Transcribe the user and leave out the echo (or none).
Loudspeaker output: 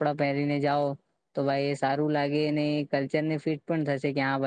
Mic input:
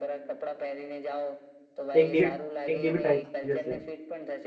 એક દીવી એક ડીબી ટાઈપ જશે